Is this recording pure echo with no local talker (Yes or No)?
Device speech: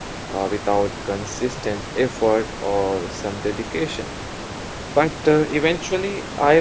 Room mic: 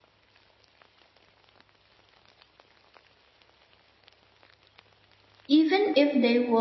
No